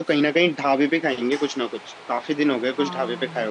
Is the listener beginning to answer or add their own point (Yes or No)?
Yes